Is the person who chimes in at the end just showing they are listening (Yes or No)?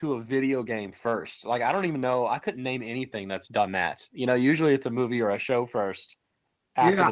No